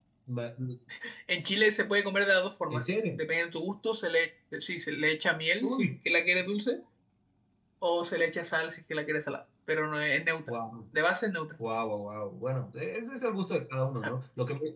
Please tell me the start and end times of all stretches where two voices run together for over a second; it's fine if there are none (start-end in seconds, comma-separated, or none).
none